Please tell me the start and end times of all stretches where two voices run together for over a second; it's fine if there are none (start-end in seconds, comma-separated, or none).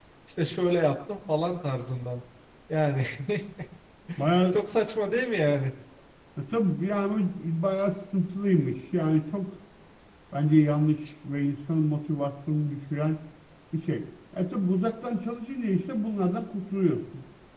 none